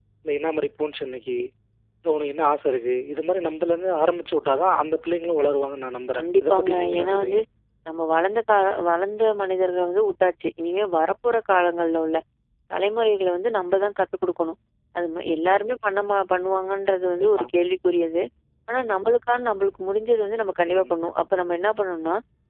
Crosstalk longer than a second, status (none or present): present